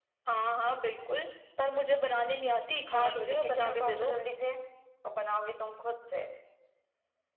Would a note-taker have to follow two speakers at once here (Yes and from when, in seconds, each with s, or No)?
Yes, from 2.9 s